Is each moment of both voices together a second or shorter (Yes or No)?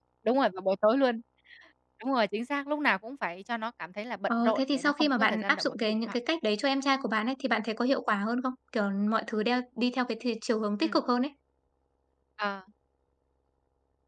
No